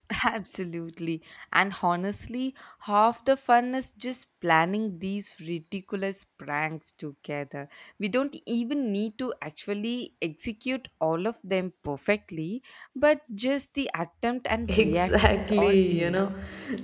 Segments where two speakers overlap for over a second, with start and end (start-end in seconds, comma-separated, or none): 14.7-16.3